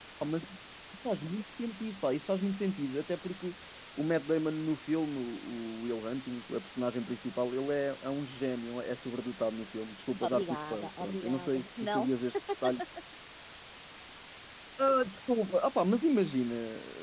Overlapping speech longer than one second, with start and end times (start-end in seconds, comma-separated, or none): 10.2-12.1